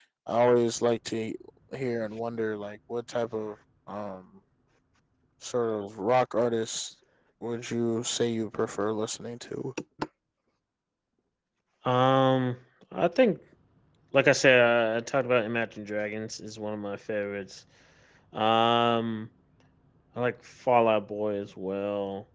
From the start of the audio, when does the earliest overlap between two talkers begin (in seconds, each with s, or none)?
none